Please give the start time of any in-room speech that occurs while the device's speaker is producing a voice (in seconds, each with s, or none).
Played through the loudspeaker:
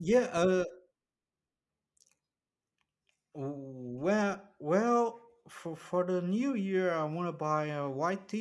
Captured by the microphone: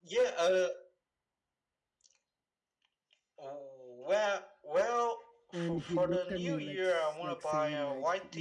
5.5 s